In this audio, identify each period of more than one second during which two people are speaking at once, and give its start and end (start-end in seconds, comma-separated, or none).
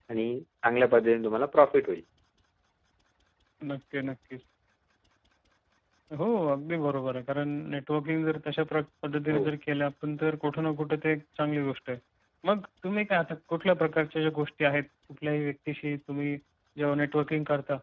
none